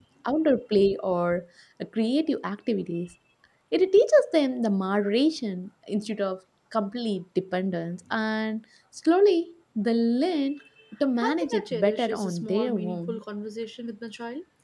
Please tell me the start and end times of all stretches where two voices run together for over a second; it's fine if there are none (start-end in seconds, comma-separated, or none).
11.2-13.2